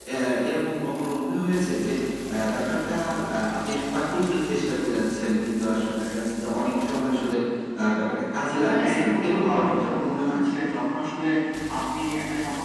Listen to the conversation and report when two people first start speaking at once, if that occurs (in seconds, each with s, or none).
8.6 s